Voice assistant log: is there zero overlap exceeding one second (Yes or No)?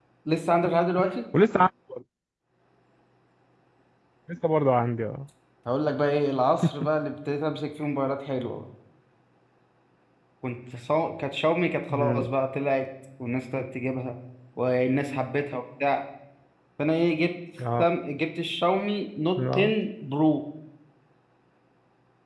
Yes